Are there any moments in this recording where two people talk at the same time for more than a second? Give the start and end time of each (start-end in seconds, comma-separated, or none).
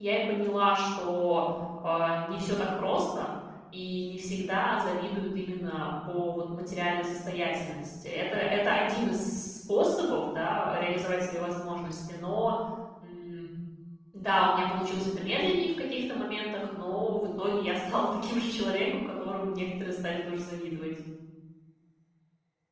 none